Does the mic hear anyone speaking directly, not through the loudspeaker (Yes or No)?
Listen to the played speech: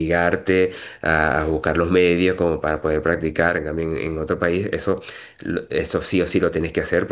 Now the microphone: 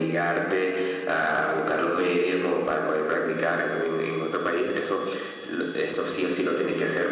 No